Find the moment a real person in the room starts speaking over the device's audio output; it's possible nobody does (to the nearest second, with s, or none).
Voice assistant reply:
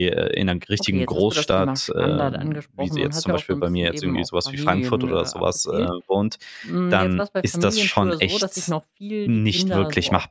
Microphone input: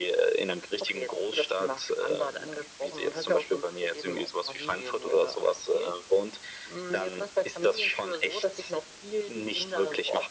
none